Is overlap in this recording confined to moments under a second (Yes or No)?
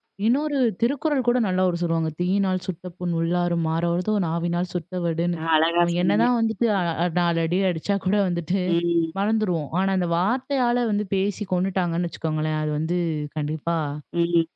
Yes